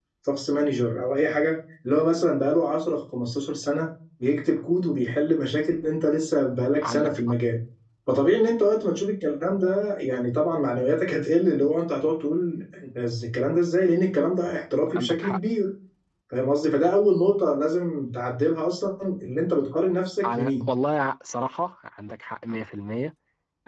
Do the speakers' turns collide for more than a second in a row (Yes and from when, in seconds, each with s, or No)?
No